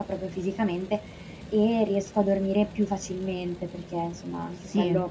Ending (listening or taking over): listening